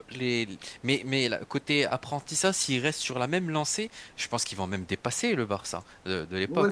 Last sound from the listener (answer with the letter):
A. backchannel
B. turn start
B